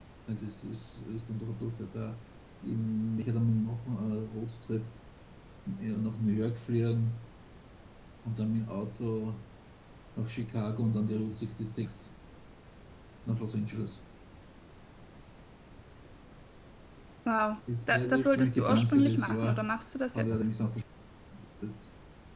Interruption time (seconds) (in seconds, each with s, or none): 17.9 s